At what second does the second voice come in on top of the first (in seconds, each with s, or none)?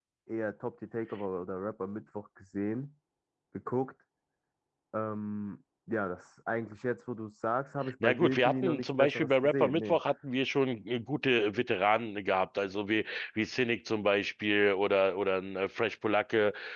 8.0 s